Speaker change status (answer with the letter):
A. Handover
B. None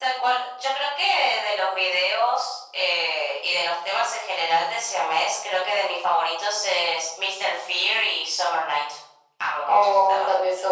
A